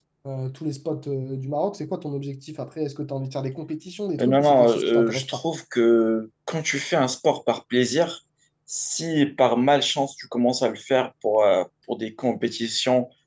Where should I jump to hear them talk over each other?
4.2 s

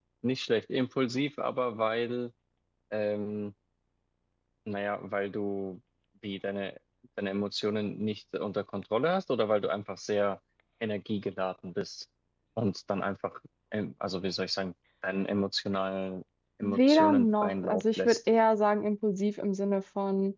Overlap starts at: 16.6 s

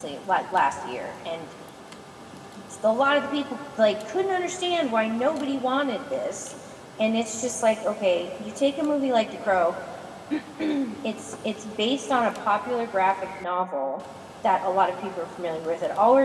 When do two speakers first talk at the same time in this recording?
none

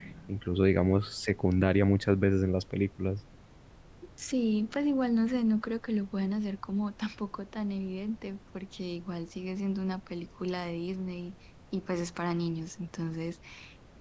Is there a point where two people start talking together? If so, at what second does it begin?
none

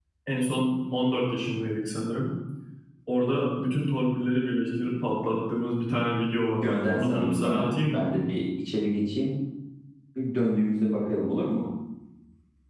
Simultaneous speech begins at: 6.6 s

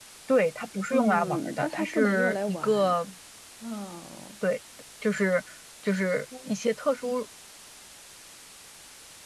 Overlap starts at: 0.9 s

